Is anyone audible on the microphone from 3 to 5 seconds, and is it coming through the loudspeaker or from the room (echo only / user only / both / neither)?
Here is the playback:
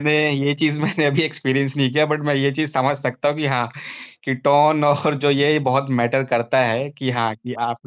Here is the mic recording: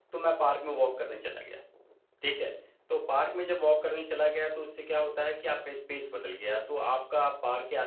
user only